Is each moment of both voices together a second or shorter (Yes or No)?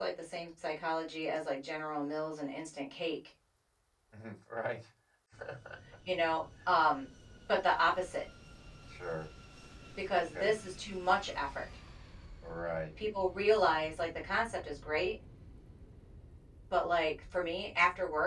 Yes